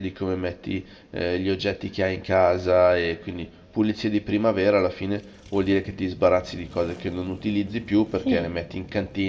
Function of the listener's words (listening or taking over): listening